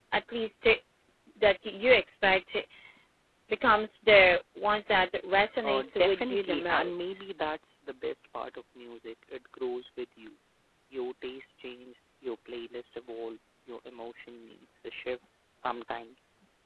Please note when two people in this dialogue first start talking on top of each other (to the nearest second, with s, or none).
6 s